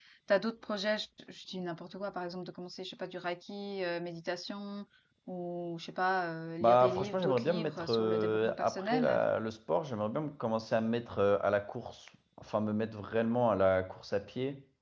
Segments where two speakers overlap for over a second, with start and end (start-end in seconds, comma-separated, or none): 6.6-9.2